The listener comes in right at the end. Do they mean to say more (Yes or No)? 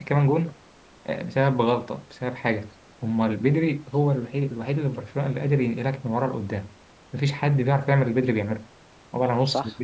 Yes